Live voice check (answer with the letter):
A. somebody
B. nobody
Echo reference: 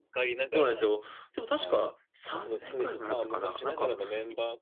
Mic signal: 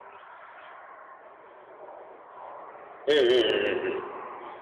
A